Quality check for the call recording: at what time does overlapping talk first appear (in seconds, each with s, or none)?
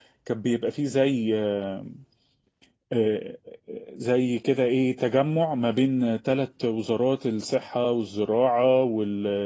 none